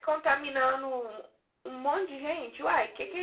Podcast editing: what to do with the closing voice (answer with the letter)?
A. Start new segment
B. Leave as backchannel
A